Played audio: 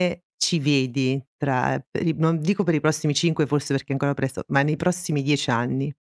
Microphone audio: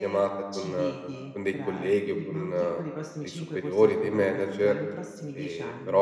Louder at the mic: user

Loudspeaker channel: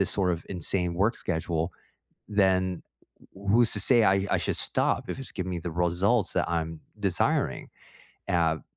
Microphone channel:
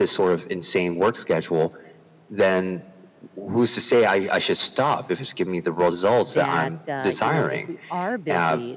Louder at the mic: echo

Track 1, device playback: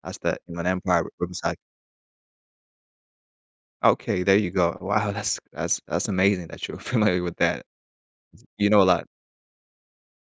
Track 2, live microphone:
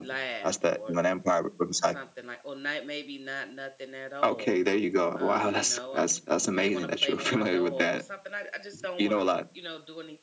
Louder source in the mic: echo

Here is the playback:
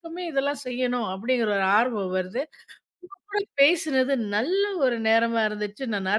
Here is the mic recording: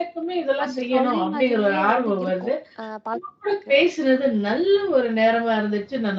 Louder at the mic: echo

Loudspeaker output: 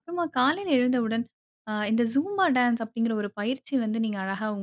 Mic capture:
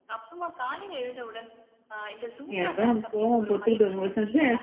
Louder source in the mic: user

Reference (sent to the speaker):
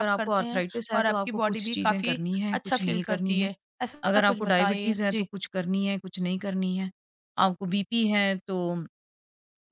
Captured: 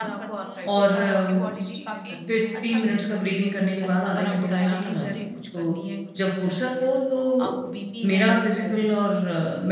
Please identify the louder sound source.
user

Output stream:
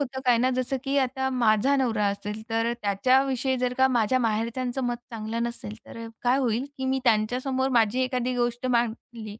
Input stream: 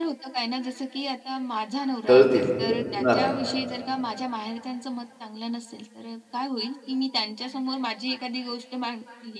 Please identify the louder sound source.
user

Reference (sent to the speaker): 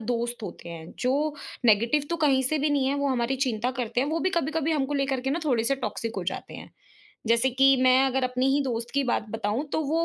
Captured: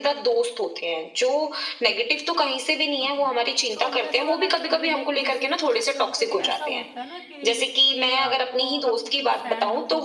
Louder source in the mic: echo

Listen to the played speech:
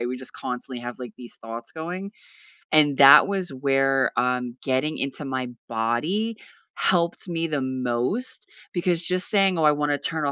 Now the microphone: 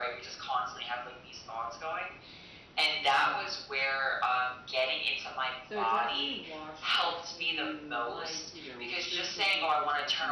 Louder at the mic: echo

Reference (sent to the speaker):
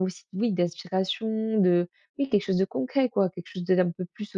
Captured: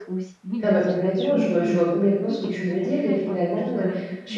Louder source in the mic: user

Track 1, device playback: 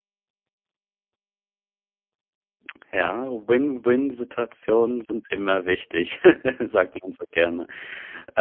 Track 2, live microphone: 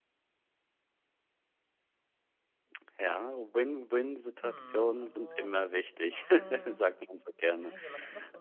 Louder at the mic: echo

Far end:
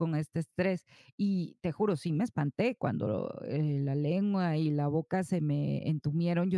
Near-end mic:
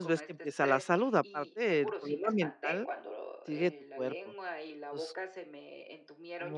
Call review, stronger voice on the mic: user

